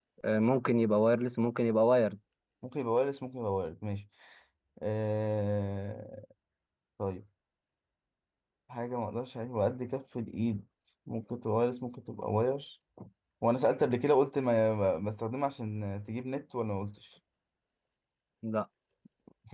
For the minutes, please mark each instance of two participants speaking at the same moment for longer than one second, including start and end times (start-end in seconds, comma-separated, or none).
none